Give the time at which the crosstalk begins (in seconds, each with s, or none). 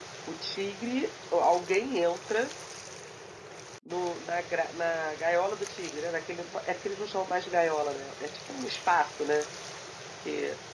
none